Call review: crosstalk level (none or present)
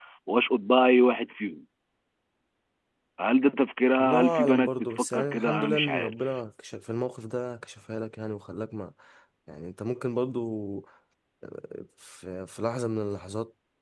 present